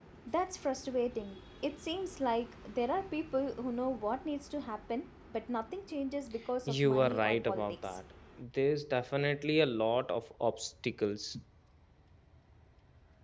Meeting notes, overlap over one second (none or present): present